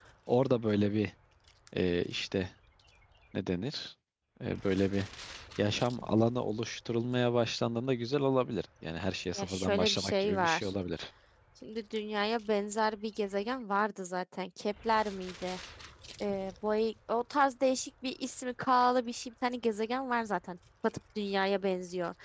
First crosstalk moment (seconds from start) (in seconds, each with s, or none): 9.4 s